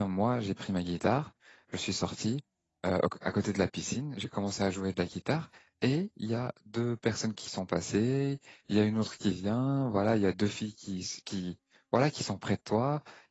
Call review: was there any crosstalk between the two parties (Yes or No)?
No